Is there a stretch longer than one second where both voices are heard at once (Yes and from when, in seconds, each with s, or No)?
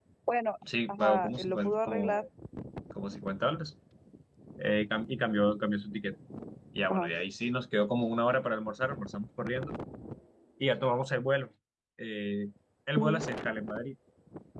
Yes, from 0.9 s